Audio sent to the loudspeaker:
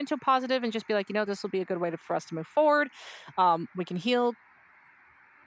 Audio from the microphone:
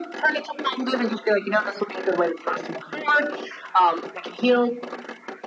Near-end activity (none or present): none